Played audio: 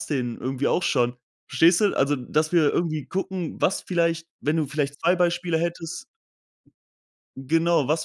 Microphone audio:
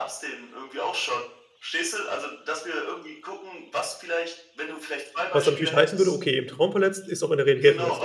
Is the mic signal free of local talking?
No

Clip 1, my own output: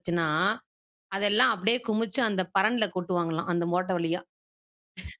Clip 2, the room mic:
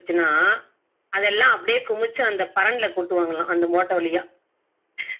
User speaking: No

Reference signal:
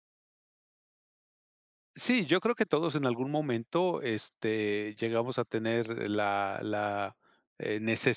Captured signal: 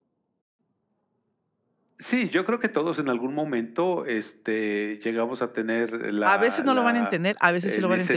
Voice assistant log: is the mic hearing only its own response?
No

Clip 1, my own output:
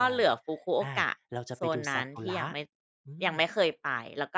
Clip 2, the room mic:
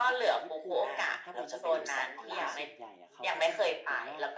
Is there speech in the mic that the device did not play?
Yes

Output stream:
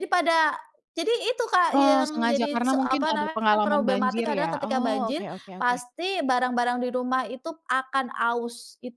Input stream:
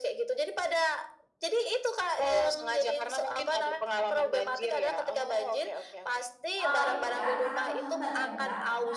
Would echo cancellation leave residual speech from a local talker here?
Yes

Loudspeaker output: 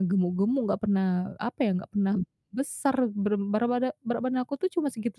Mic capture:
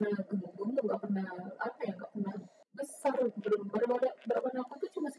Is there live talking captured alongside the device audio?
No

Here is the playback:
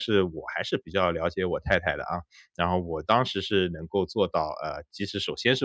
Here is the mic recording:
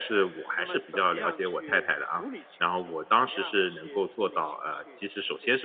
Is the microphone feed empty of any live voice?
No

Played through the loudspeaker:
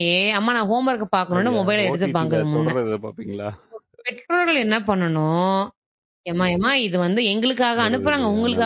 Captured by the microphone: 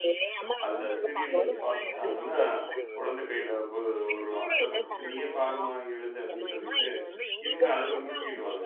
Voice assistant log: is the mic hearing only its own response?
No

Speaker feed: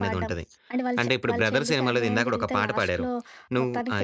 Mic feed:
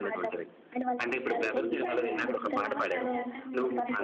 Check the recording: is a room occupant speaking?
Yes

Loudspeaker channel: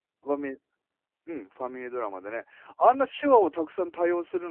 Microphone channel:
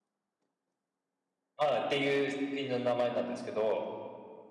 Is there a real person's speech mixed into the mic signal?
Yes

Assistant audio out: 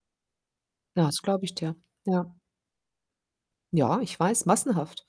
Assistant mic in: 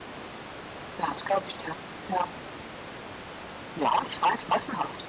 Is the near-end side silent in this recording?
Yes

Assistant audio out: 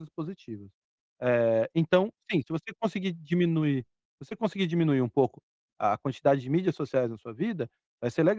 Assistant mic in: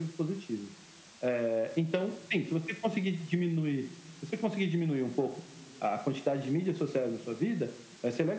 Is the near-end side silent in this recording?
Yes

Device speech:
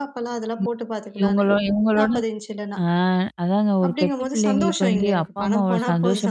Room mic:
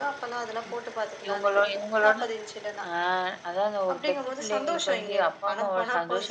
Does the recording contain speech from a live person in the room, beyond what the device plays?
No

